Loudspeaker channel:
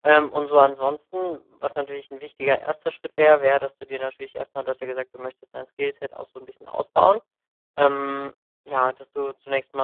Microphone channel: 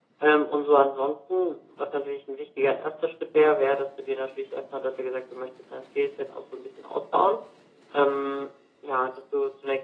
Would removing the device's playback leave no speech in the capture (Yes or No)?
Yes